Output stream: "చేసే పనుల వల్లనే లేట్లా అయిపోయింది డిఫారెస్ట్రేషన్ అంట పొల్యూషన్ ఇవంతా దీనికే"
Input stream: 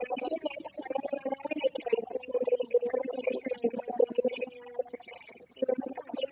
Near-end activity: none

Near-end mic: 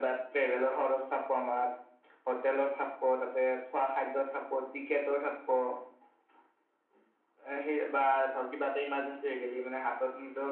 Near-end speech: none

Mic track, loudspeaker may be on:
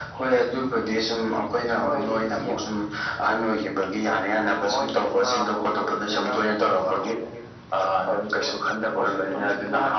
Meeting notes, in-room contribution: none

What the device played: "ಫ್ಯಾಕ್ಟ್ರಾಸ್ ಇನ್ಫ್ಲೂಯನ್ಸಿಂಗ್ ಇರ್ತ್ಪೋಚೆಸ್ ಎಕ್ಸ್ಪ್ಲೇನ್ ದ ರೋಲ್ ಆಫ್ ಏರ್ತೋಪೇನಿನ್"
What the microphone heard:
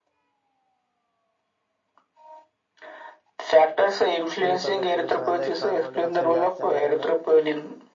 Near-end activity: present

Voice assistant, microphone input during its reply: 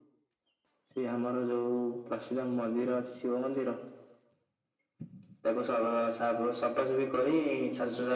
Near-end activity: none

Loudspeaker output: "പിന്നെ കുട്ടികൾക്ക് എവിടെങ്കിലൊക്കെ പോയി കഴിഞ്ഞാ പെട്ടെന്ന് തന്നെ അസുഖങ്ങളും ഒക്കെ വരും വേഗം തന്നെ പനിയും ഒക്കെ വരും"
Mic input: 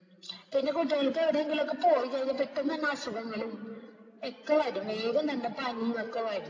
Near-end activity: none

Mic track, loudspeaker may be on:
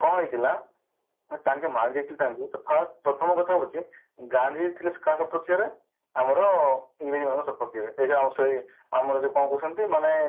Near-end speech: none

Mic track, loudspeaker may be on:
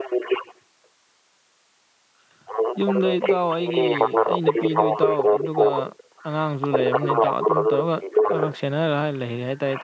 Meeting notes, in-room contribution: present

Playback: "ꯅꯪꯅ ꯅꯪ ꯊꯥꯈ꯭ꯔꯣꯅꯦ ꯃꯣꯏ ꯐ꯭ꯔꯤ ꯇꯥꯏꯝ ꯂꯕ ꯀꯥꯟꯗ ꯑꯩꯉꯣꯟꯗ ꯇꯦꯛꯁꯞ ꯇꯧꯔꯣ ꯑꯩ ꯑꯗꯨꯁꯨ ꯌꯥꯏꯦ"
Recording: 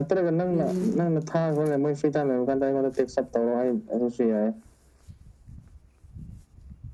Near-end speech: present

